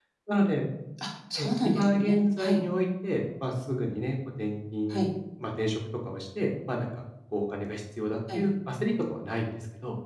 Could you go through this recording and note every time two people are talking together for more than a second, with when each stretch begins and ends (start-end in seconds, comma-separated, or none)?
1.4-2.6